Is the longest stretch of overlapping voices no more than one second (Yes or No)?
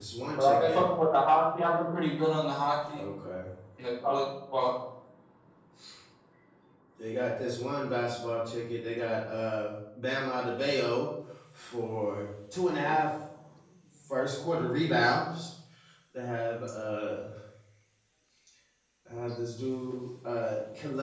Yes